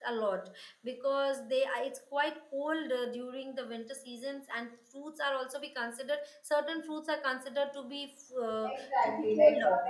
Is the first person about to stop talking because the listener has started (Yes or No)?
Yes